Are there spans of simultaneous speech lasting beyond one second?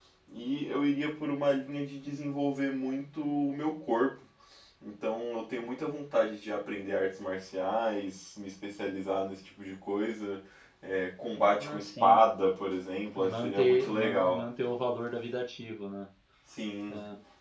Yes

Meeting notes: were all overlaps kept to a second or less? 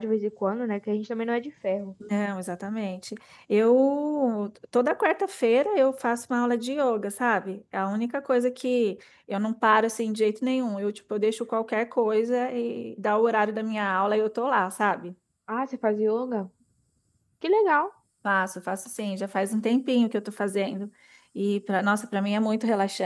Yes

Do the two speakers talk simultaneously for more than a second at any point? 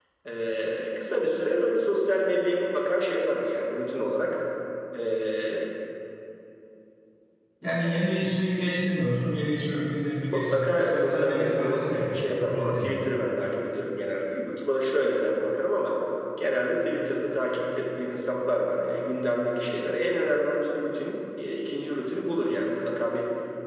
Yes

